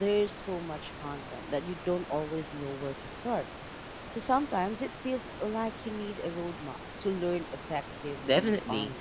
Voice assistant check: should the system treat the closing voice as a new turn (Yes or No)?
Yes